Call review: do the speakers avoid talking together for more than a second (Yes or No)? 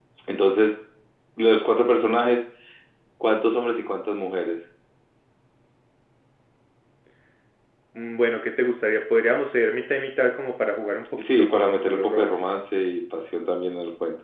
No